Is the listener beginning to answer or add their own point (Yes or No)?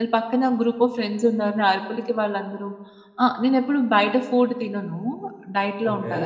No